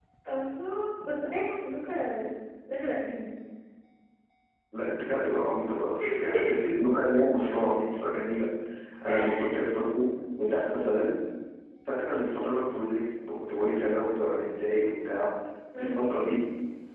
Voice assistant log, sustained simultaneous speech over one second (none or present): none